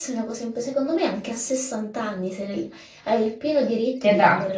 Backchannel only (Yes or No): Yes